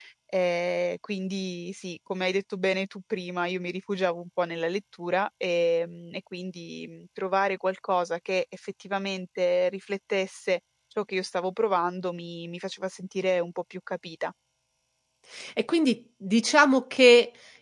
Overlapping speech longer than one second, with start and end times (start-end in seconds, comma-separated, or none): none